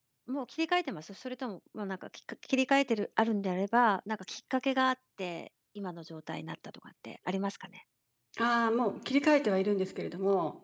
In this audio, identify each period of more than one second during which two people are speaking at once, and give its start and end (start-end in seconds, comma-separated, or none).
none